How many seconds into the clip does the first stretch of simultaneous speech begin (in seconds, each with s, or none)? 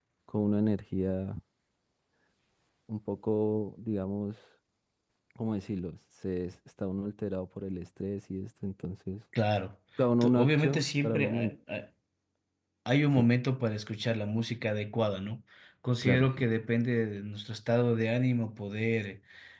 10.2 s